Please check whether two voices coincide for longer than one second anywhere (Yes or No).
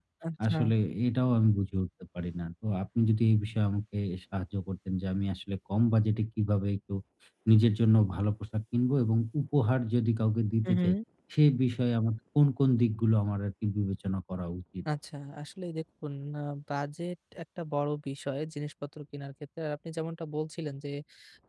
No